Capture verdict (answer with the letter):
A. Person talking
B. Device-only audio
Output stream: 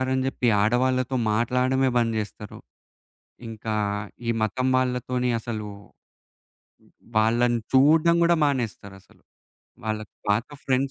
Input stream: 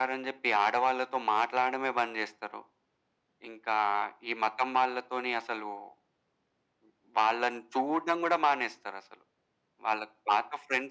B